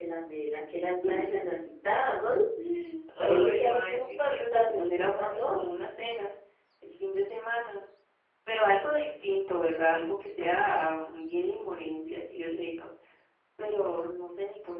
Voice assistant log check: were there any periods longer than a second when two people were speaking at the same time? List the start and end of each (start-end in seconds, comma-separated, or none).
3.2-5.6